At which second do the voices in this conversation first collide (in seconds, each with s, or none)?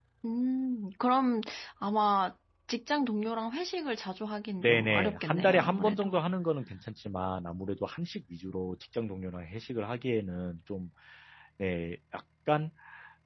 4.6 s